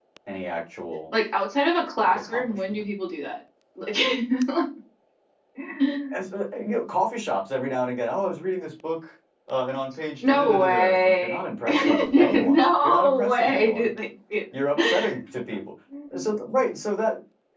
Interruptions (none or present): present